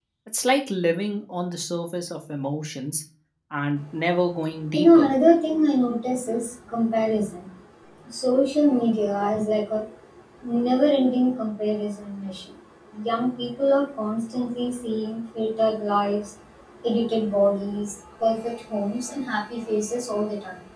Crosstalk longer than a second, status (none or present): none